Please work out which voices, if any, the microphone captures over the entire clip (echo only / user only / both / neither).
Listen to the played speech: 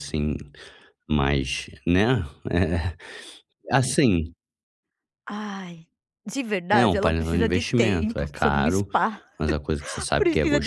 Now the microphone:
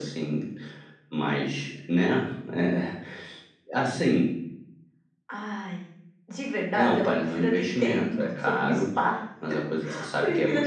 echo only